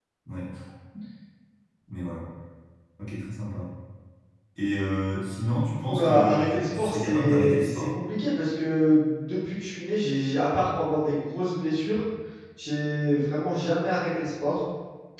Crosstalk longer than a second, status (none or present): present